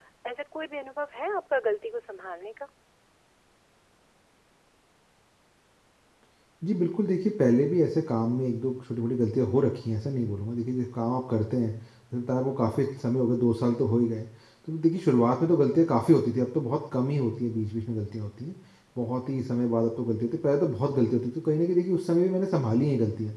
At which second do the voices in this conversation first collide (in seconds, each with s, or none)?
none